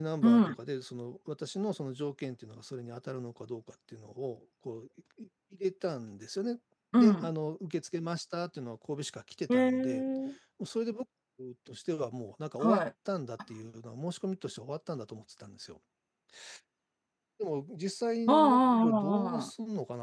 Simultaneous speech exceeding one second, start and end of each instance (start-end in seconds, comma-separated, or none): 18.3-19.5